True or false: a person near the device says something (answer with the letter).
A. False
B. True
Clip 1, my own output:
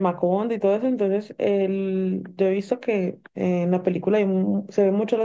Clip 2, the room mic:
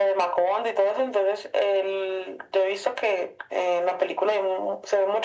A